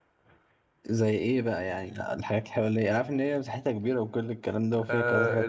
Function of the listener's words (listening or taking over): taking over